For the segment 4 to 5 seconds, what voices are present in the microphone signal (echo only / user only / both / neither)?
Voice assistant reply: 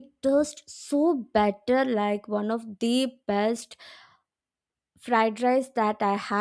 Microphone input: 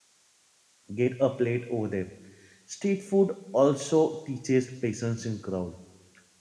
user only